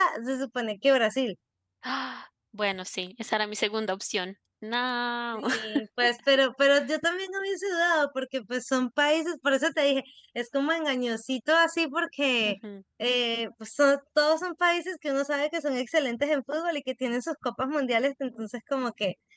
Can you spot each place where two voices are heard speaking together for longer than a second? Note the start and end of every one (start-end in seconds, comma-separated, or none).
none